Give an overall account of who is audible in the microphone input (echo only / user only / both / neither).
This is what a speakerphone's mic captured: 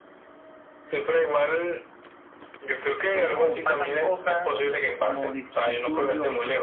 both